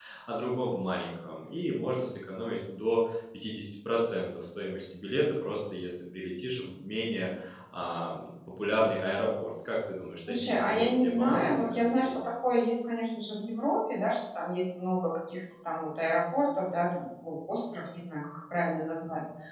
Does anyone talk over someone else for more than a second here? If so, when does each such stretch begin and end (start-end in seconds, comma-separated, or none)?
10.4-12.2